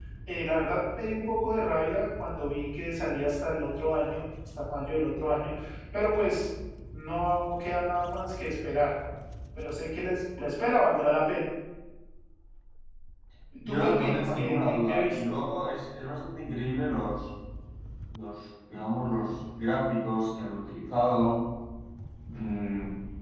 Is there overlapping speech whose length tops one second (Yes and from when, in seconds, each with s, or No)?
Yes, from 13.7 s